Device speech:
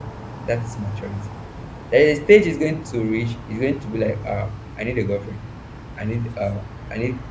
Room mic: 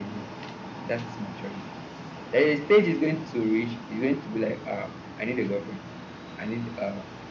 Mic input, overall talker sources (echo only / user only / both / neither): echo only